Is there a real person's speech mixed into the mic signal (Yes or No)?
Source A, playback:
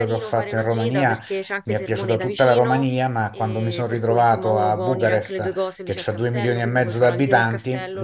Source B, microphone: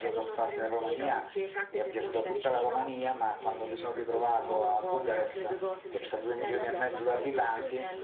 Yes